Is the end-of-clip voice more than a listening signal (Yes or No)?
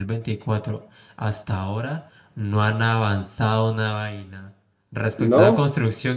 No